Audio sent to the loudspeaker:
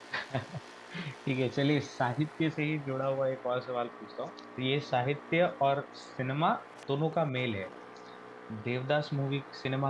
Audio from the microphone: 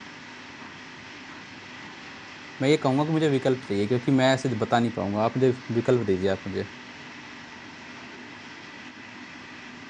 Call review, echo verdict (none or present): none